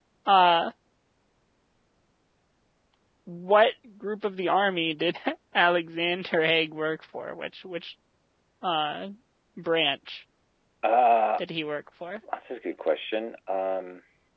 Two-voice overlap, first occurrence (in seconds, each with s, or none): none